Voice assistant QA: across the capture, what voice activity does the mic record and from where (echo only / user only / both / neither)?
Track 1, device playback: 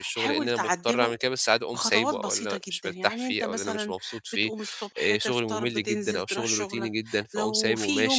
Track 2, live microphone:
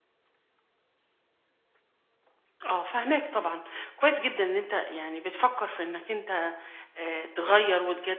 user only